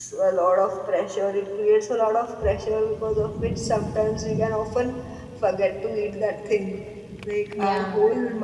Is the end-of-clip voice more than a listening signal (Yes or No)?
No